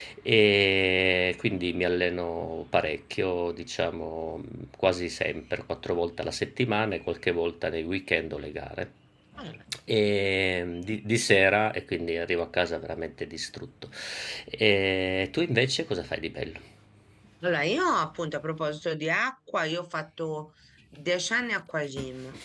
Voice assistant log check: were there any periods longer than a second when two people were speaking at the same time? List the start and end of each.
none

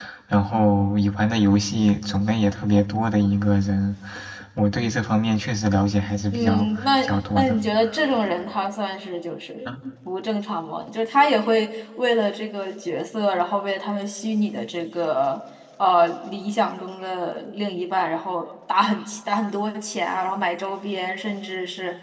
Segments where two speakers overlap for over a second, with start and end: 6.3-7.6

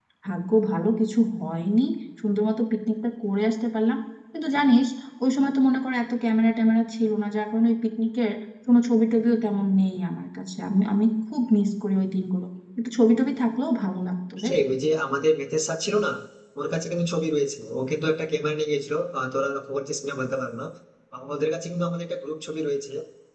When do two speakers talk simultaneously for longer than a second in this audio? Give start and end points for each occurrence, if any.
none

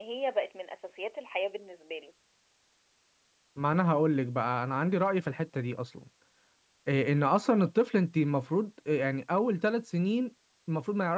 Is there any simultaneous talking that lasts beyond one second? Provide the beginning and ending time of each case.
none

